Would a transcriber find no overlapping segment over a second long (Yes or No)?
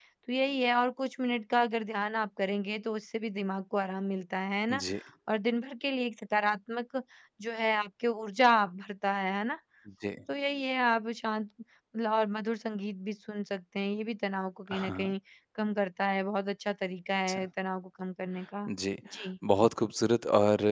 Yes